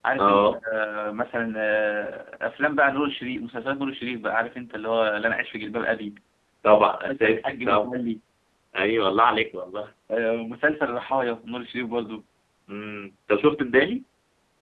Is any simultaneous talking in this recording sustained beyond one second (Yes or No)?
Yes